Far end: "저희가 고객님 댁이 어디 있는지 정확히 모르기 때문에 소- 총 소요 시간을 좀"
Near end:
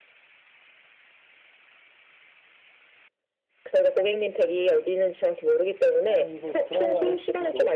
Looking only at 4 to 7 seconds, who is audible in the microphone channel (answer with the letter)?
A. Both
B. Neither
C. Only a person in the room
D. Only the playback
A